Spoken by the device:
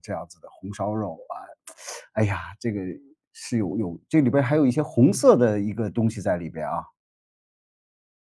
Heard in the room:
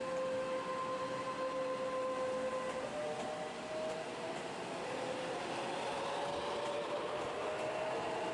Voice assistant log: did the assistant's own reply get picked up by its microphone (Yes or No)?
No